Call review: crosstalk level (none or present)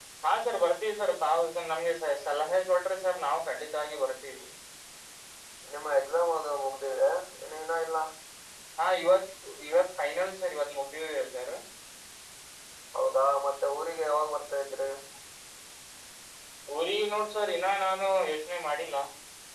none